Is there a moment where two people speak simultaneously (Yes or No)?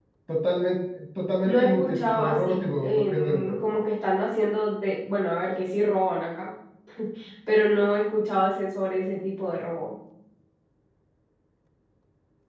Yes